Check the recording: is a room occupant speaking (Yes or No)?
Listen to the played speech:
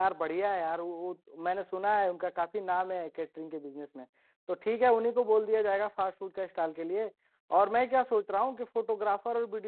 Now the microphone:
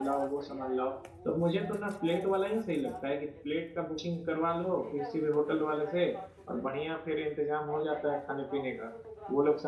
Yes